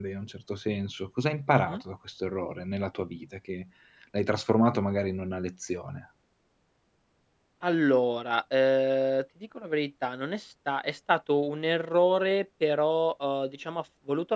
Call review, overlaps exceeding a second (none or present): none